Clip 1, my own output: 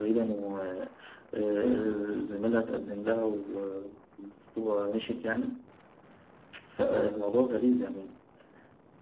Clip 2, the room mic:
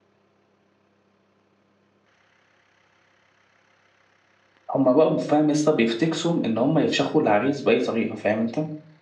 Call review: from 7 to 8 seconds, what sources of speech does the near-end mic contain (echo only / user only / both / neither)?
user only